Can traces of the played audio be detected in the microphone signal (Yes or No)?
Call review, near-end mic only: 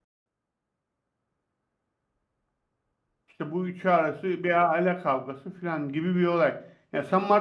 No